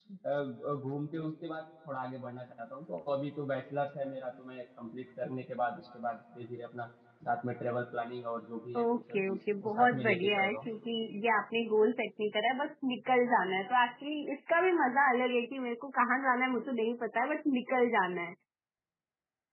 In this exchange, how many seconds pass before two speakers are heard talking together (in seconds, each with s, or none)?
8.7 s